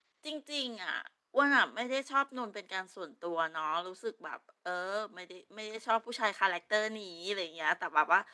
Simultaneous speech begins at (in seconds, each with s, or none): none